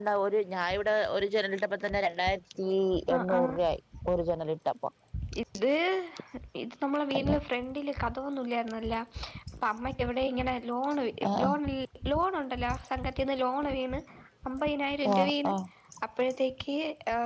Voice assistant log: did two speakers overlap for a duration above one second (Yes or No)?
No